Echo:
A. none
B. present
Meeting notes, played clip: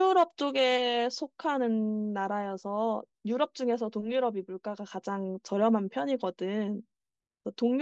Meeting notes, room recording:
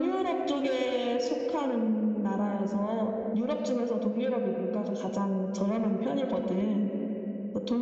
B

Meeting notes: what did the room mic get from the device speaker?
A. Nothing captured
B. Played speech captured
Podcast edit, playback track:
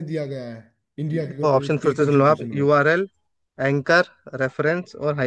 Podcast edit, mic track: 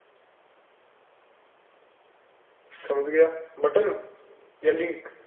A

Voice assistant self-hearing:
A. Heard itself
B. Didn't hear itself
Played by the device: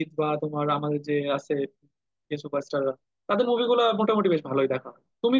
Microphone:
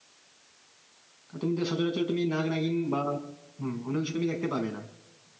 B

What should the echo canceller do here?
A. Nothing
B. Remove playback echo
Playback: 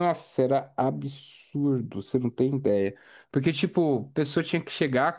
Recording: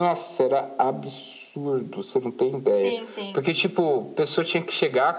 B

